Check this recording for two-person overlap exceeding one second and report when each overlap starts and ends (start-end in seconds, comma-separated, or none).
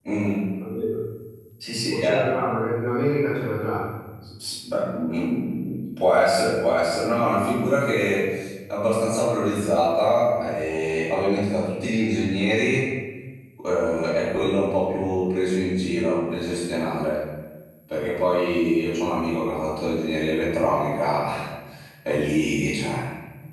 none